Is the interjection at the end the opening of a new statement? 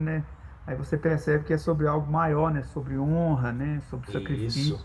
No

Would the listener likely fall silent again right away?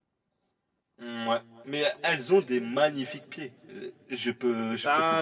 No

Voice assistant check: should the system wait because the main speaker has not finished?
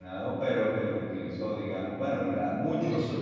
Yes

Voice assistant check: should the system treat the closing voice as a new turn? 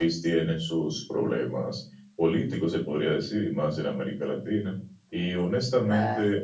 No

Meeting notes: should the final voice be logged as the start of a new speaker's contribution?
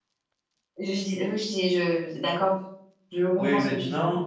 Yes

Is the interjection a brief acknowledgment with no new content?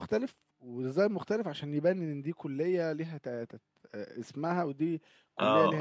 No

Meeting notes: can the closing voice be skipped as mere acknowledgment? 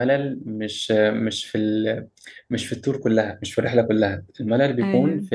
Yes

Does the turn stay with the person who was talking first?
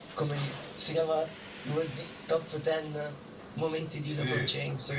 No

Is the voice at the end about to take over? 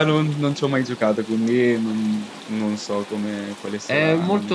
Yes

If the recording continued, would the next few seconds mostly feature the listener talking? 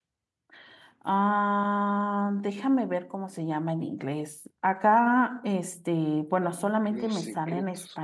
Yes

